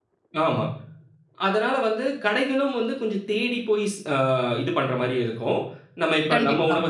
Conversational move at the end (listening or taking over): listening